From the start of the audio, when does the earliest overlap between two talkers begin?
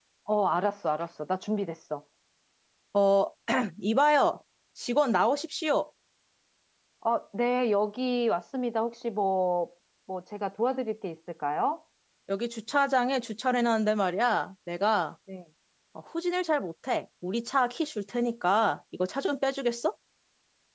none

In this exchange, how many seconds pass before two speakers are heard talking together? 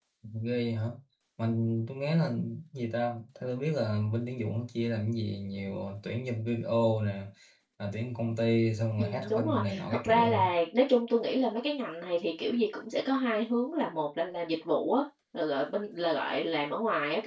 9.0 s

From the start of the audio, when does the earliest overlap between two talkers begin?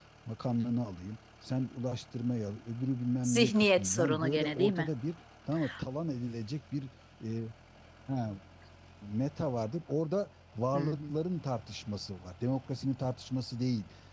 3.2 s

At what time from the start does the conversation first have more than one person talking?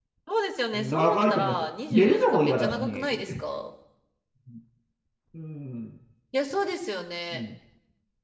0.7 s

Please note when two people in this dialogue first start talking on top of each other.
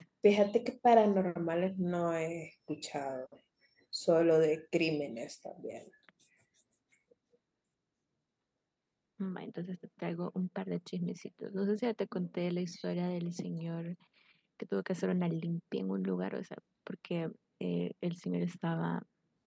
none

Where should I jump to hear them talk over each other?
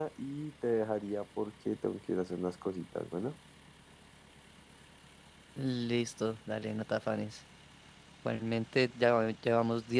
none

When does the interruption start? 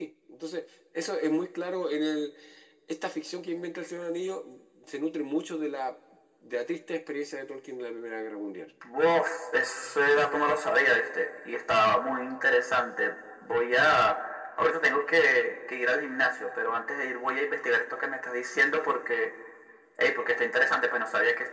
none

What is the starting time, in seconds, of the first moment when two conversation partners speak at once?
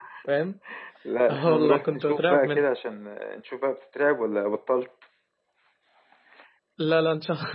1.3 s

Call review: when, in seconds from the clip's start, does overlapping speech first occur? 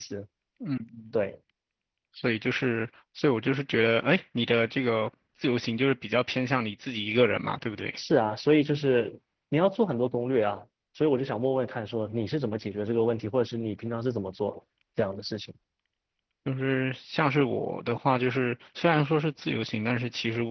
none

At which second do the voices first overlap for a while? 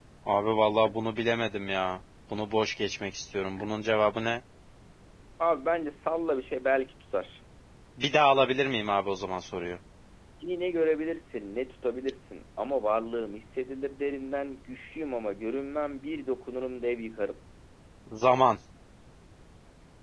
none

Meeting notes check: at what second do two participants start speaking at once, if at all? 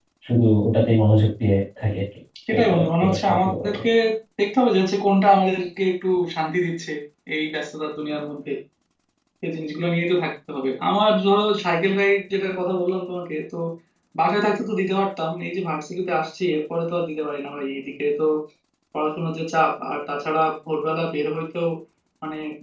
2.5 s

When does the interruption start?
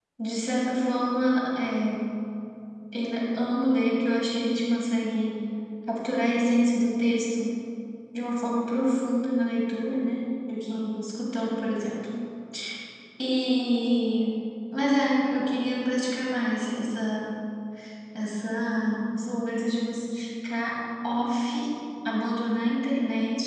none

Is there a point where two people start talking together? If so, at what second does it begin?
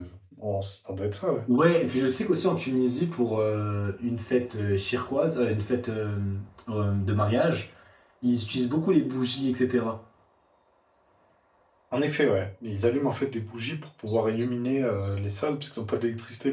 none

